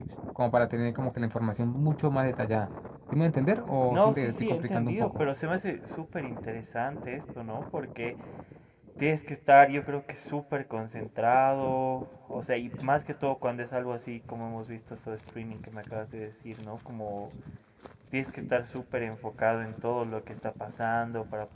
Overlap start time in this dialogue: 3.9 s

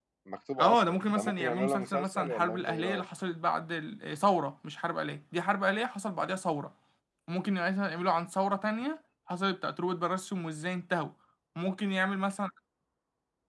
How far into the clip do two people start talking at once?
0.6 s

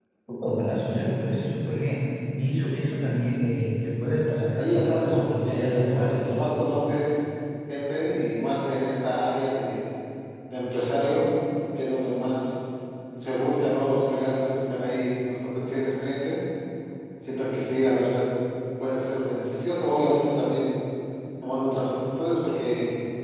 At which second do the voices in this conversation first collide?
4.6 s

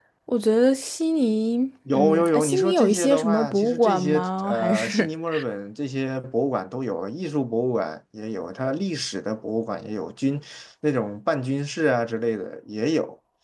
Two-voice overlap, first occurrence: 1.9 s

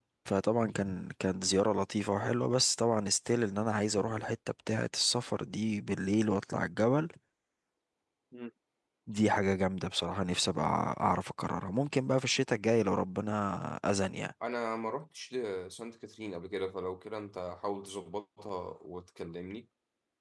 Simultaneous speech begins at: none

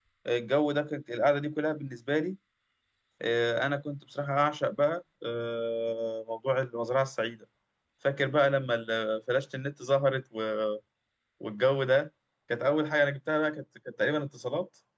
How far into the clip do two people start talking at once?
none

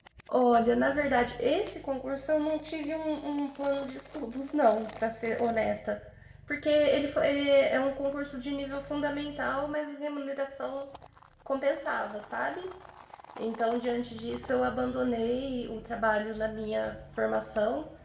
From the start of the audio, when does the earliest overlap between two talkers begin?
none

